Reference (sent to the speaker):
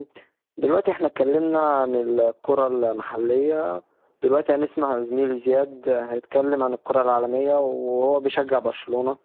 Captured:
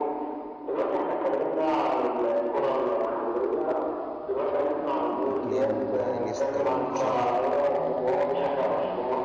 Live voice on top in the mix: No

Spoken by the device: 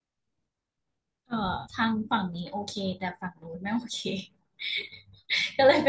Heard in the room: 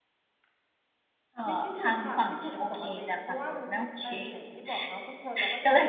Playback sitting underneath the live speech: No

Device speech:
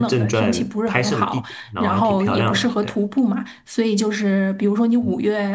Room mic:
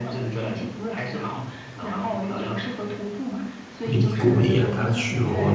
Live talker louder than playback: Yes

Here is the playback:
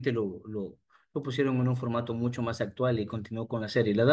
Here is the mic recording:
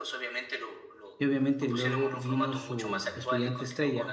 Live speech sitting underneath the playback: No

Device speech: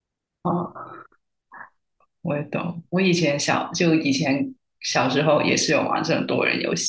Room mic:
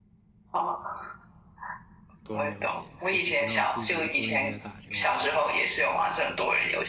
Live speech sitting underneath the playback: Yes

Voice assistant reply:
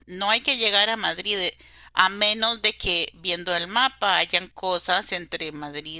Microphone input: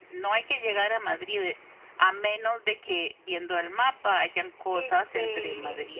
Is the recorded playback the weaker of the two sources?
No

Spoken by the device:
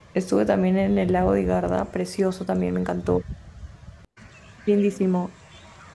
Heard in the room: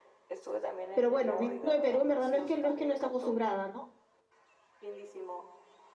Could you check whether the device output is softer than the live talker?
Yes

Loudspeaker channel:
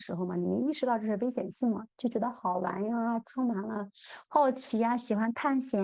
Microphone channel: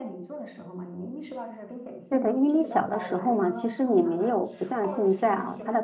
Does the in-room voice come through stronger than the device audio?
Yes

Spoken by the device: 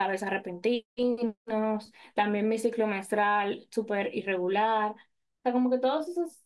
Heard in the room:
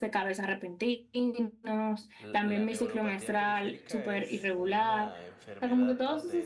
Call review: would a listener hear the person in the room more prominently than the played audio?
No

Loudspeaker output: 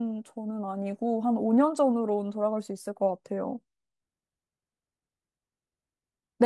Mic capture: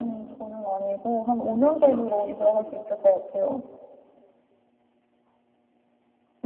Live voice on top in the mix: No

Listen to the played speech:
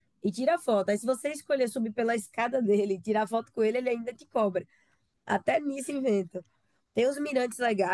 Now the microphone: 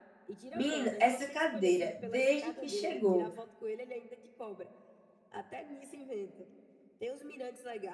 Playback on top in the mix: No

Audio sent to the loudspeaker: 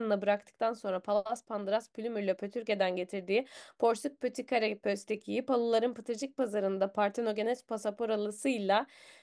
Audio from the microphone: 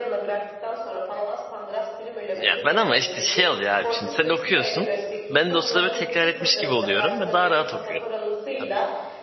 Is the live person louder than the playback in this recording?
Yes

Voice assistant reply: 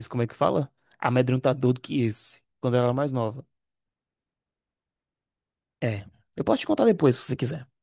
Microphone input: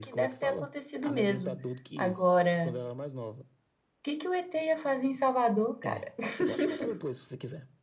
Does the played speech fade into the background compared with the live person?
Yes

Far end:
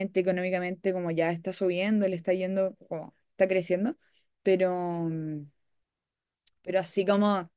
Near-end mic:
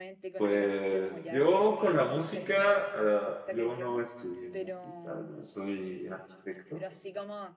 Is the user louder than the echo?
Yes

